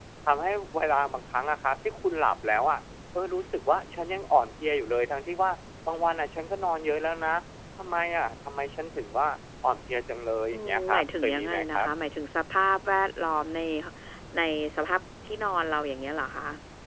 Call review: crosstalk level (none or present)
present